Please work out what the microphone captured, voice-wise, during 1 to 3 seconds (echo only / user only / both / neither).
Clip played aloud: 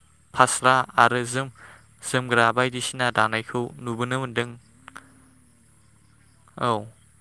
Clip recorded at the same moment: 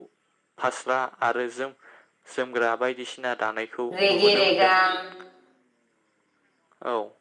echo only